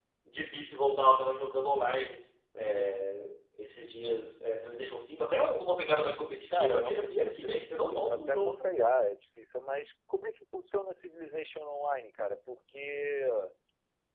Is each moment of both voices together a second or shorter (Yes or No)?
No